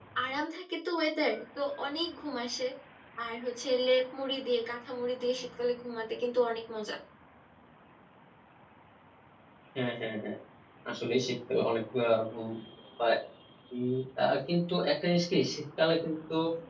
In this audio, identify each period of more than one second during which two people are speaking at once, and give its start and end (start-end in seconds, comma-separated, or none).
none